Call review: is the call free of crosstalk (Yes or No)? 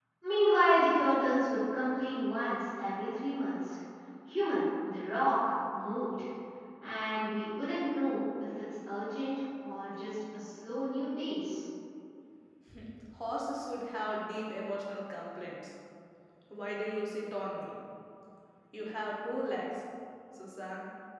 Yes